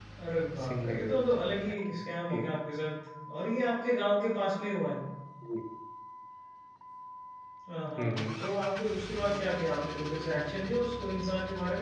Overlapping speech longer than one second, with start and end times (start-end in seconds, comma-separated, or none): 0.6-2.0